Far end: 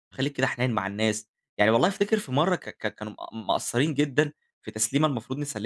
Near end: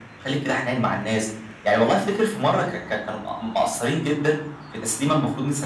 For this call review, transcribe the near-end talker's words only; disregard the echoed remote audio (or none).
none